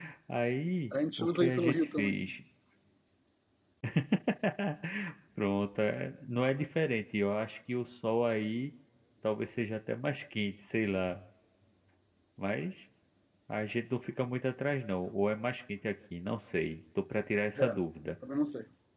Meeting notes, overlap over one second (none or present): present